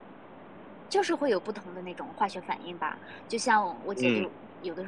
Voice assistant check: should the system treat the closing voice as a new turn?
No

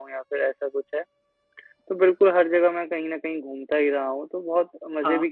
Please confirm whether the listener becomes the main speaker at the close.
No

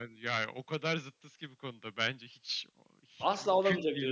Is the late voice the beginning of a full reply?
Yes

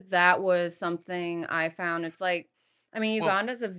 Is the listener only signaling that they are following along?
Yes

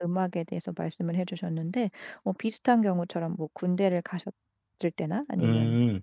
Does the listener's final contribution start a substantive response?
No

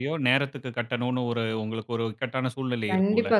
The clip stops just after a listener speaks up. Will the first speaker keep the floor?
No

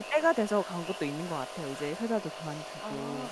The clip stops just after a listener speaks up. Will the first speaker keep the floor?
No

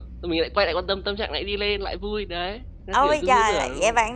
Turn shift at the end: Yes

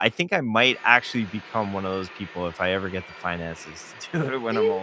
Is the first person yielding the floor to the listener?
Yes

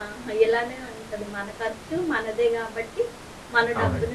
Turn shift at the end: No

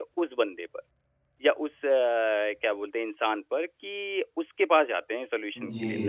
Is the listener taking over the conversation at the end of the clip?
Yes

